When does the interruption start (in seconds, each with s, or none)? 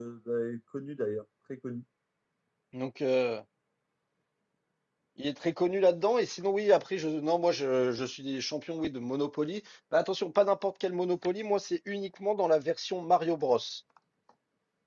none